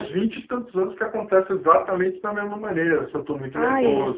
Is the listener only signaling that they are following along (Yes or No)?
Yes